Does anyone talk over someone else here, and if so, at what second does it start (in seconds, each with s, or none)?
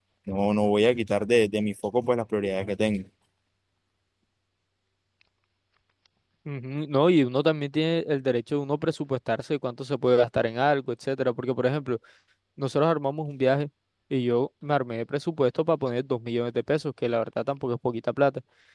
none